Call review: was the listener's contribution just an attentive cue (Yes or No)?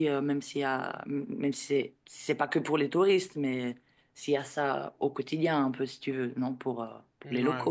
No